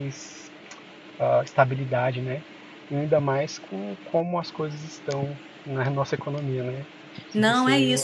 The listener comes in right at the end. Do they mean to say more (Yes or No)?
Yes